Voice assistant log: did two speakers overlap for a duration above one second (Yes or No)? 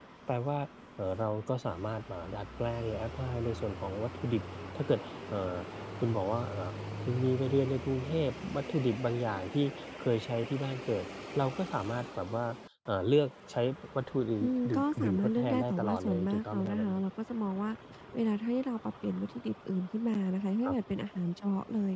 Yes